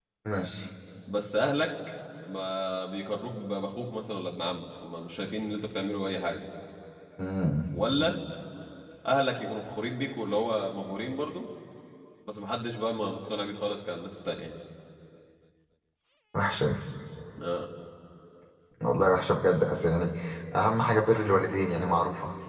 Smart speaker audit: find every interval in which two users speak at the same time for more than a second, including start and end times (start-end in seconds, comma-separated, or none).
none